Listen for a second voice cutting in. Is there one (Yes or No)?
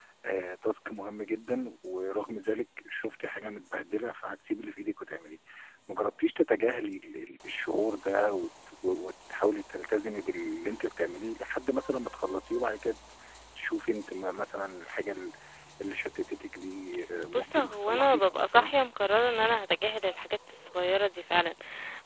Yes